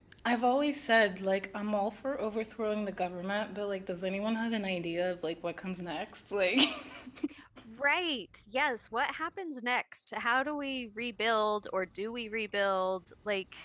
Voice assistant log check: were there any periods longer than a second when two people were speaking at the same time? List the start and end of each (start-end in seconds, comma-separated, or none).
none